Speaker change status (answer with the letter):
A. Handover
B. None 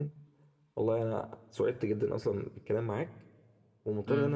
B